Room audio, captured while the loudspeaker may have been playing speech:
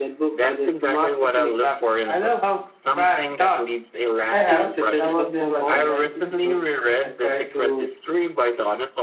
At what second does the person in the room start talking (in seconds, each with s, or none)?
4.3 s